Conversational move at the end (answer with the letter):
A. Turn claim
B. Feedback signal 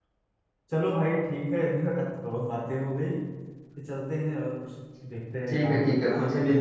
A